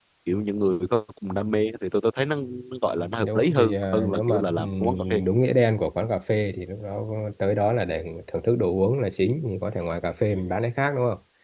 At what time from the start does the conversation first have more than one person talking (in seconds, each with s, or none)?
3.2 s